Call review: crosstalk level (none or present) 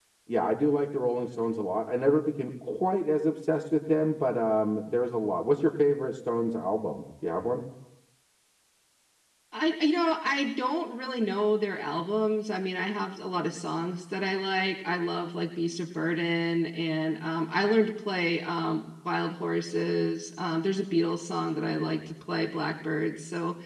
none